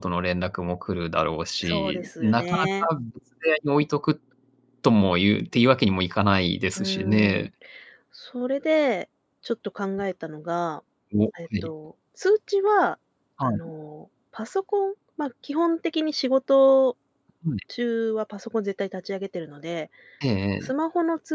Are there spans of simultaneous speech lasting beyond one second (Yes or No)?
Yes